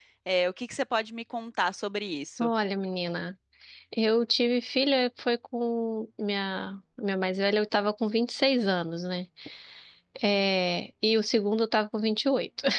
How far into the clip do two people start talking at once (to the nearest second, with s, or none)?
none